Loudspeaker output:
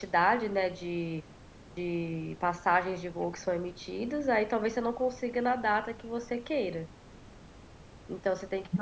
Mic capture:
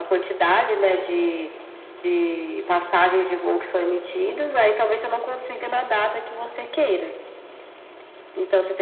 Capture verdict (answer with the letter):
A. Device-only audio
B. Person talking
A